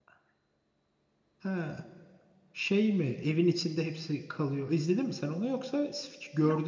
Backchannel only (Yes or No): No